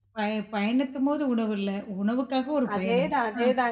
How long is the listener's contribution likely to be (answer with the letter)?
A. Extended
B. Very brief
A